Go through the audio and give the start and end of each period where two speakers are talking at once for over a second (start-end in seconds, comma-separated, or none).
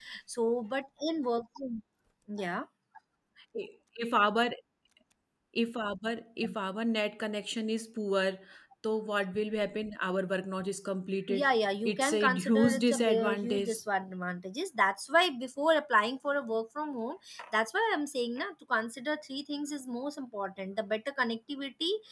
11.9-13.7